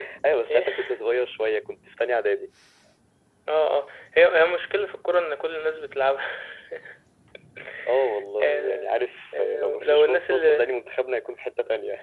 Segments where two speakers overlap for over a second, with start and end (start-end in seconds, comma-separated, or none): 9.4-10.7